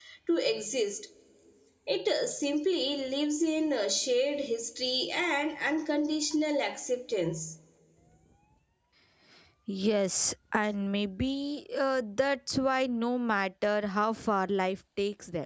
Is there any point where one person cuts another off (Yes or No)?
No